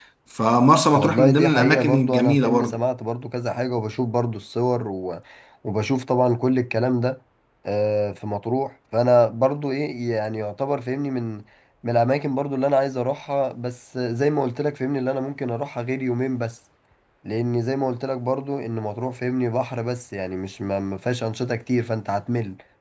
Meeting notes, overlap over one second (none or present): present